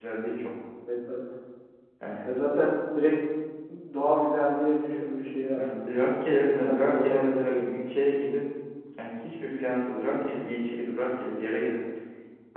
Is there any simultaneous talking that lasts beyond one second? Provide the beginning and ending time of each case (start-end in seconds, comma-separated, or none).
6.5-7.7